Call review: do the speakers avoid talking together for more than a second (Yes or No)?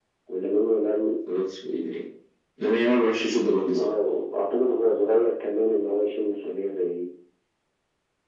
Yes